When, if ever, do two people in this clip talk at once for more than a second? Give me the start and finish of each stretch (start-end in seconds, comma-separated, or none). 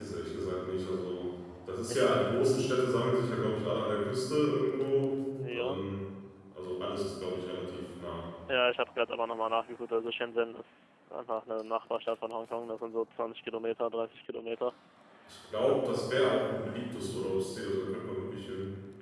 none